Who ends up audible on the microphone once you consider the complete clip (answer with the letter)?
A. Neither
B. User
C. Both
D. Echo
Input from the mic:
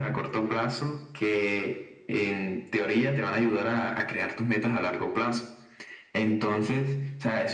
D